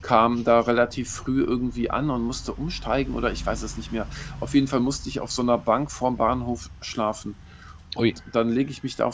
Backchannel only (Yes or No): Yes